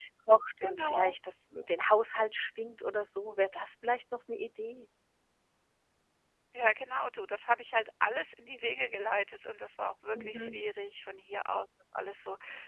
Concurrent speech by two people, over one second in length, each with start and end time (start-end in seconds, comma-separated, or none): none